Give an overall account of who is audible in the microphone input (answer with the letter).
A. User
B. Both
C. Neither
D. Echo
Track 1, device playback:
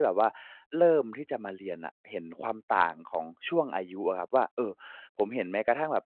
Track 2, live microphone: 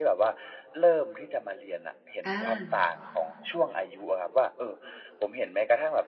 B